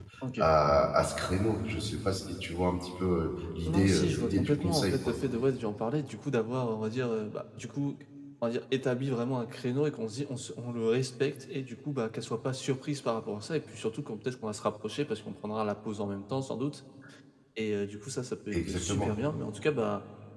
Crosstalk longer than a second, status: present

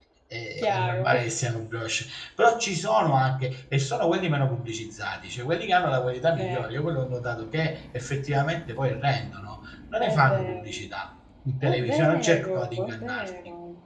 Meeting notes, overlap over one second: present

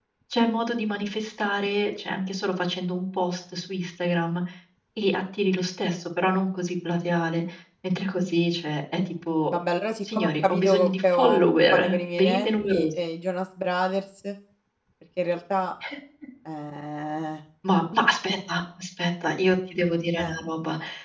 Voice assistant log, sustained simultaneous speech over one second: present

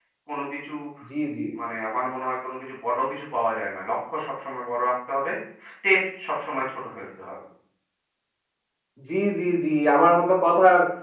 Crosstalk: none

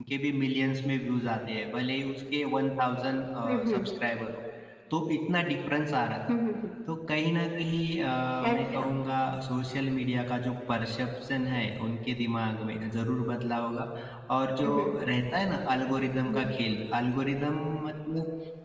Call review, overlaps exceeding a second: none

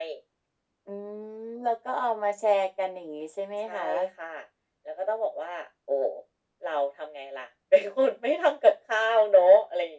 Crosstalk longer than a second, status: none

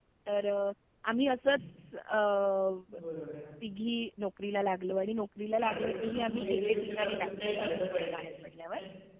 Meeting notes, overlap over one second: present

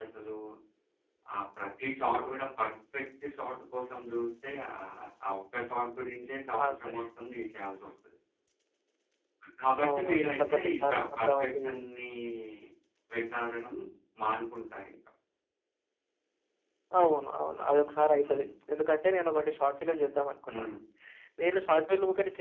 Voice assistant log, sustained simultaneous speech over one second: present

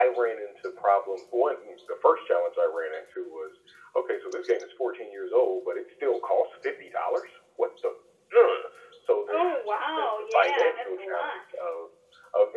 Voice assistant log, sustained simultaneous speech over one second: present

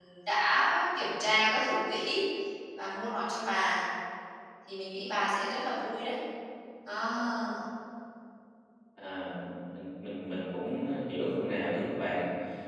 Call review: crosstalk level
none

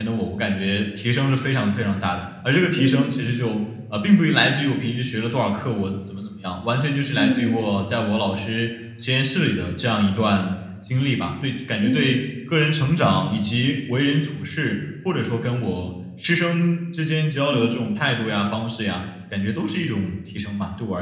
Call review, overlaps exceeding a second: none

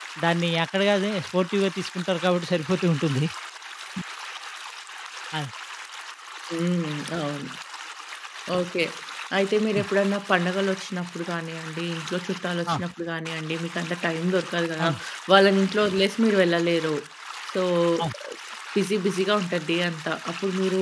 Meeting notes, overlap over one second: none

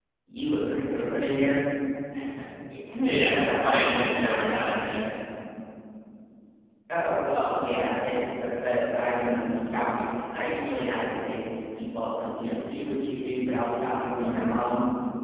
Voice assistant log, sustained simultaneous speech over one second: present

